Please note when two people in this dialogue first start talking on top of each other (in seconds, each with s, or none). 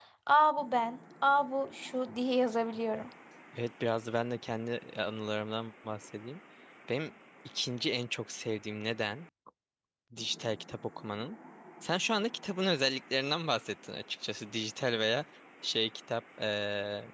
none